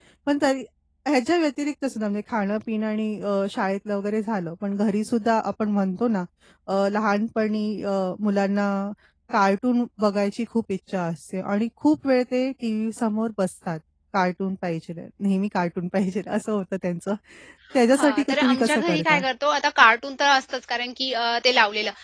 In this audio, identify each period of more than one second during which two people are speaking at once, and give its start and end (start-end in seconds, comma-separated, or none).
17.9-19.2